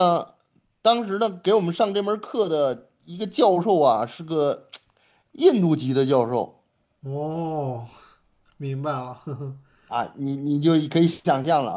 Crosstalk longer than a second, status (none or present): none